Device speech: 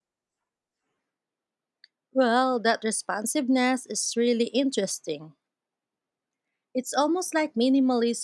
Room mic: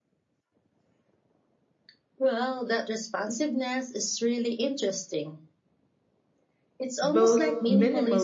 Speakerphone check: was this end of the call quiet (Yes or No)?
No